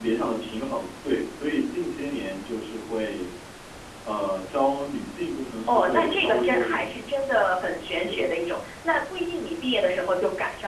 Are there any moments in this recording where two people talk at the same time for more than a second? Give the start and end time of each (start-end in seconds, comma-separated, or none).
5.7-7.0